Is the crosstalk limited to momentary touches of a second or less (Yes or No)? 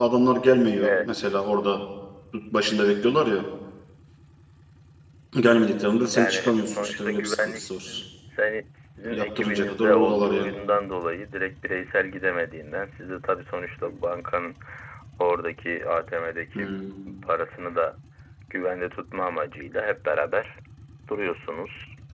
No